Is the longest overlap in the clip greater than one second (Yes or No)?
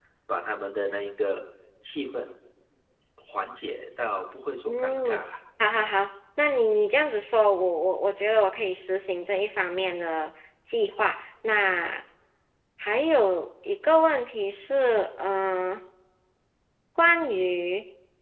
No